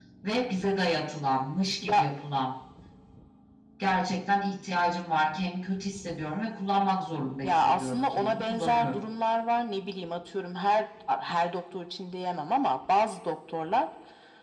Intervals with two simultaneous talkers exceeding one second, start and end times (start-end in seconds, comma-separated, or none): 7.4-9.0